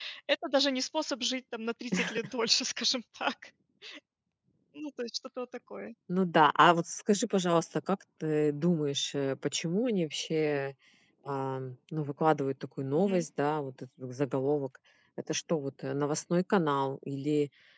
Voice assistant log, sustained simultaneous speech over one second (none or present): none